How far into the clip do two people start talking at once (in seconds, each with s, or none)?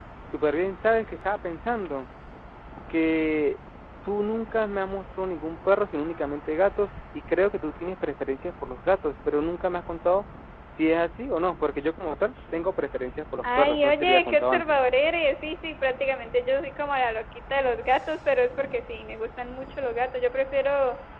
13.4 s